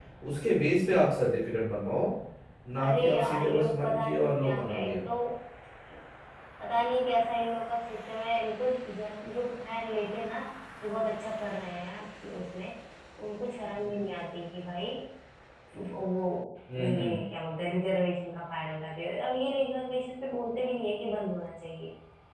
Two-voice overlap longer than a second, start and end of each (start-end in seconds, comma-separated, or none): 2.8-5.0